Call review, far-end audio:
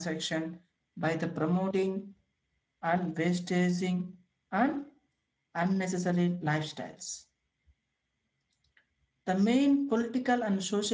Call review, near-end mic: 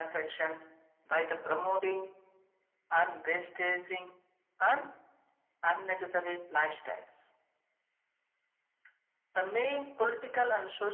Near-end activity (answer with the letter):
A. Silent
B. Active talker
A